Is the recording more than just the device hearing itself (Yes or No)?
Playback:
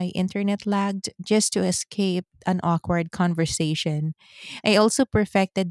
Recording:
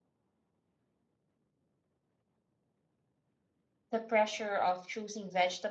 Yes